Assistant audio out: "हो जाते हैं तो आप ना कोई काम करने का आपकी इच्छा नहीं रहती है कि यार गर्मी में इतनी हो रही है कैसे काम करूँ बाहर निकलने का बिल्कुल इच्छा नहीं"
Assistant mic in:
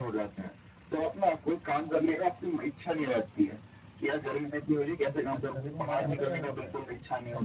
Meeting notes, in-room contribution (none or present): present